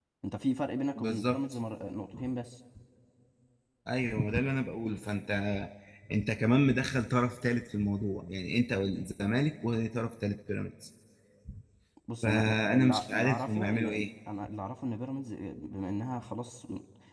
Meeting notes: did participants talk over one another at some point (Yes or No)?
Yes